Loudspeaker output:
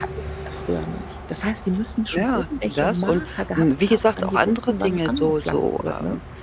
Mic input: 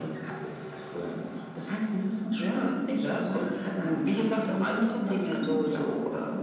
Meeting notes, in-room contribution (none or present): none